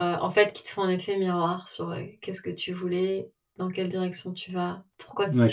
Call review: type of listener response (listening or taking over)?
taking over